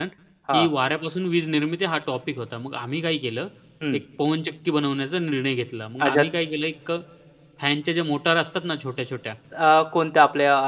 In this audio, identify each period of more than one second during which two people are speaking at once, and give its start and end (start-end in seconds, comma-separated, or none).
none